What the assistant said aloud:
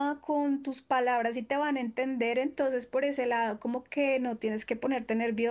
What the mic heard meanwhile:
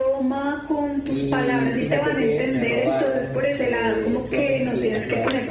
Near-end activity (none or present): present